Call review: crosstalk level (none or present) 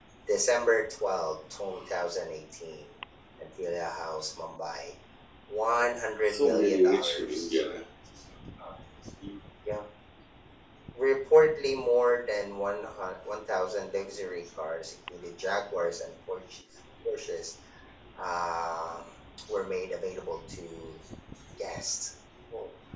present